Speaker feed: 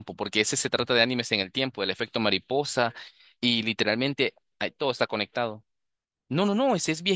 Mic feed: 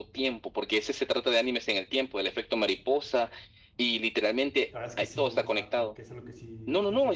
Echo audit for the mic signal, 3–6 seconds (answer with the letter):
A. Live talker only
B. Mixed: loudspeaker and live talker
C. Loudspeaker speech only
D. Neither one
B